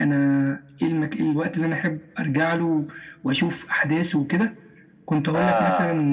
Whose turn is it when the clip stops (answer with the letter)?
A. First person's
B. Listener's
A